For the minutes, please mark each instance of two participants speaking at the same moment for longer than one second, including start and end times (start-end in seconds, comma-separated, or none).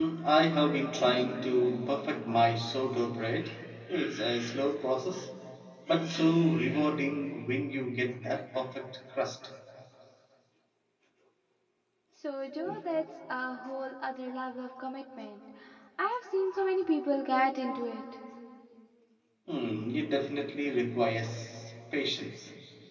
none